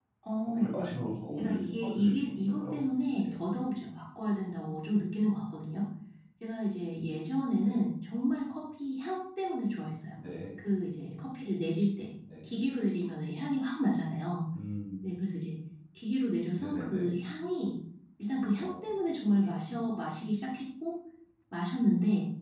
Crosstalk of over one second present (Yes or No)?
Yes